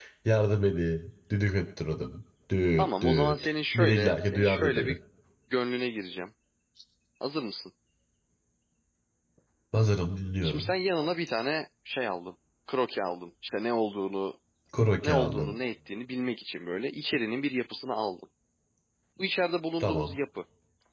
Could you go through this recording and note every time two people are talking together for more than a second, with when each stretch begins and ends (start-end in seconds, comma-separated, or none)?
2.8-5.0